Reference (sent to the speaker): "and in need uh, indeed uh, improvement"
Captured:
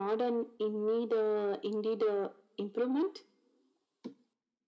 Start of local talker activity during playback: none

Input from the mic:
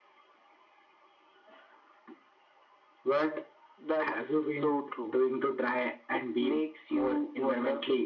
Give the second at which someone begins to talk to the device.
none

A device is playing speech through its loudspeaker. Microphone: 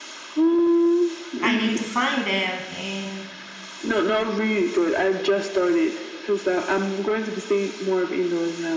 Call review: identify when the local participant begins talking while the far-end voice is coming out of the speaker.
1.4 s

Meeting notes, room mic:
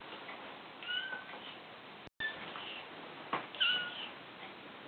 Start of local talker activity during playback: none

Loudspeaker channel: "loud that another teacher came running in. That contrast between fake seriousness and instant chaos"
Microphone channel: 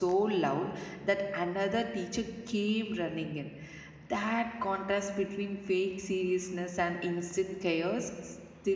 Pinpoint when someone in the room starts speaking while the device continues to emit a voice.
none

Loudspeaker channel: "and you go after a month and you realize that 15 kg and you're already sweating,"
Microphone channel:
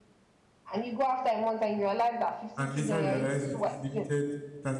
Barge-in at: 2.6 s

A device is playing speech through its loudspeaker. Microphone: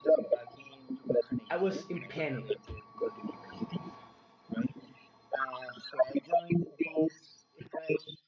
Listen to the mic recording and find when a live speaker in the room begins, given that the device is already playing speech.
1.5 s

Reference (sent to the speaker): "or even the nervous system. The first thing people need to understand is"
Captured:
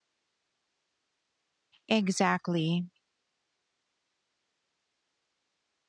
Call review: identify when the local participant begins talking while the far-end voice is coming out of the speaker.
1.9 s

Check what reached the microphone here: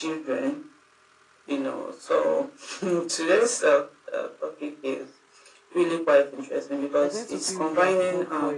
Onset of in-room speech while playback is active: 7.0 s

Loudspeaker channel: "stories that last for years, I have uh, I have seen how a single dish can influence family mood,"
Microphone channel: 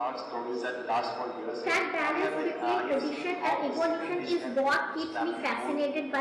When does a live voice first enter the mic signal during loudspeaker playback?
1.6 s

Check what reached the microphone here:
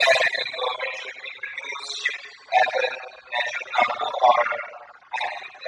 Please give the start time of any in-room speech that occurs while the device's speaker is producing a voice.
none

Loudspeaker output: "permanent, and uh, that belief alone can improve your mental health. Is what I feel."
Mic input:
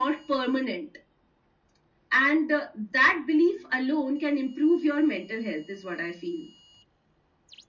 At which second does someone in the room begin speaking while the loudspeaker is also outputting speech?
none

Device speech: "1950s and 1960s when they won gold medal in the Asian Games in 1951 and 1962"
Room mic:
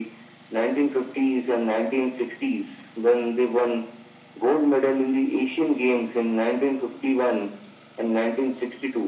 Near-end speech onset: none

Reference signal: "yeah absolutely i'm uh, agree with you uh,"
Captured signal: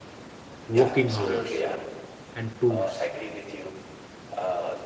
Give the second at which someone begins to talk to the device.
0.7 s

